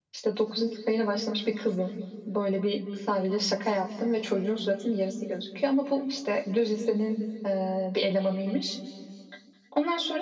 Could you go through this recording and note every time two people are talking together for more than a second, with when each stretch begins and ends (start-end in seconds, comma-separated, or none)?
none